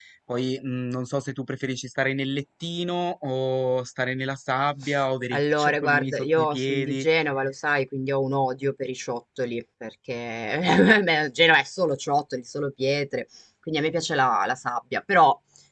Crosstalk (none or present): present